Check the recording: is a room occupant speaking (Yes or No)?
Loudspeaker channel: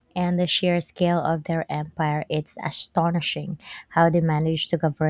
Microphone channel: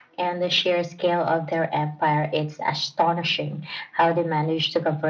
No